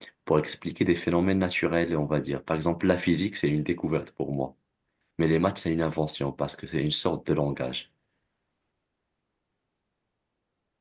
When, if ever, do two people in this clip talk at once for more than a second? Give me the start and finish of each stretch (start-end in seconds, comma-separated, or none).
none